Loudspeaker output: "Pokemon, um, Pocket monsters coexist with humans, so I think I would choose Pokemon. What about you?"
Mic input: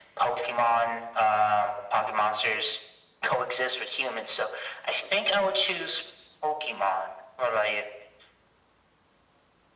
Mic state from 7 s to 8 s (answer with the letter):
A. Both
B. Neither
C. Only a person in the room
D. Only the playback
D